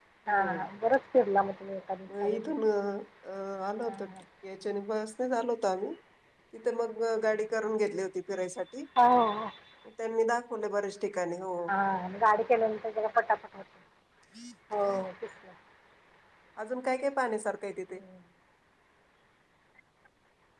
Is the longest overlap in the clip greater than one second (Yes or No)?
No